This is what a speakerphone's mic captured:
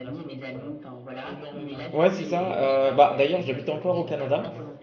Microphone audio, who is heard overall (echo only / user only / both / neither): both